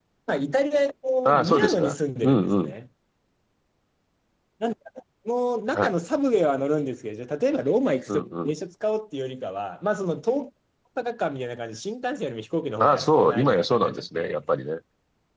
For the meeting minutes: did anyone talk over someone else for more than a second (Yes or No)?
Yes